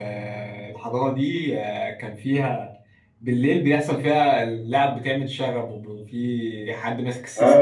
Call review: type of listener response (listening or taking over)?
taking over